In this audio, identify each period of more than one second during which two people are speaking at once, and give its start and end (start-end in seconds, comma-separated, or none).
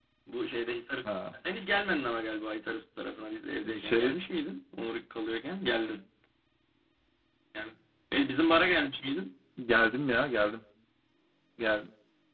none